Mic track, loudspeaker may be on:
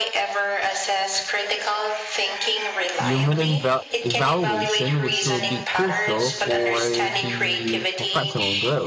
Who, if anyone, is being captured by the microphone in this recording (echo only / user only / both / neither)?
both